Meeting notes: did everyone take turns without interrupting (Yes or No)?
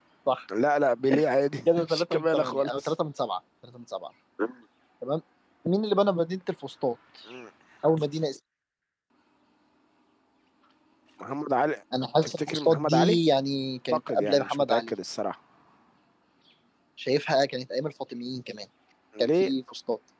No